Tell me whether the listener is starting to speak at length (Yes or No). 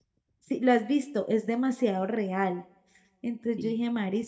No